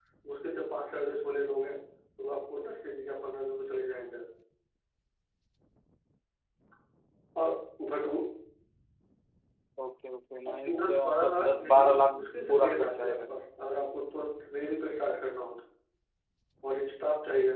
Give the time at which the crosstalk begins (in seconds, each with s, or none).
10.6 s